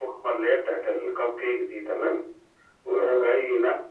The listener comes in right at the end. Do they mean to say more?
No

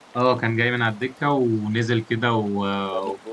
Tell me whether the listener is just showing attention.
Yes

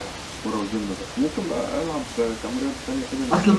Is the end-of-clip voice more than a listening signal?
Yes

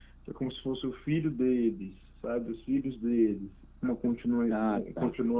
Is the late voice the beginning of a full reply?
No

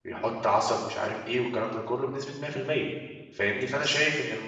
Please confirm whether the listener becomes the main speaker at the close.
No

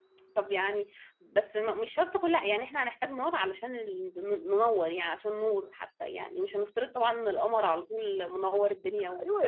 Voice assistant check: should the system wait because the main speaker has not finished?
No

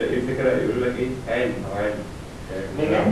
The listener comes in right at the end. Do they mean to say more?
Yes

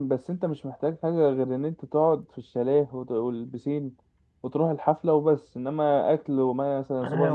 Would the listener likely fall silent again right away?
No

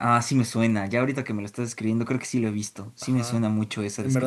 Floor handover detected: Yes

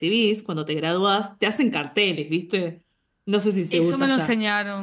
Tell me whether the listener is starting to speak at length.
Yes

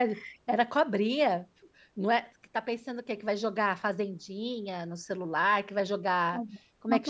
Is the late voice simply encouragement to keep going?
Yes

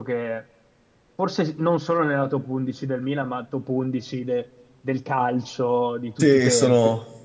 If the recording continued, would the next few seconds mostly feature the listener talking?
Yes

